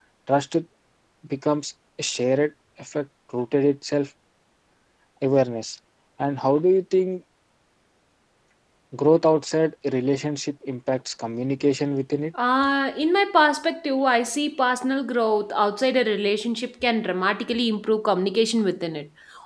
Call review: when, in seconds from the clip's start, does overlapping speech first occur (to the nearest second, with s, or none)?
none